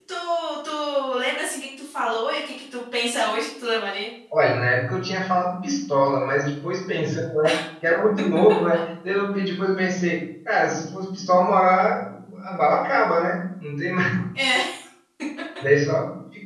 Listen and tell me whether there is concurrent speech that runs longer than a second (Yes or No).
No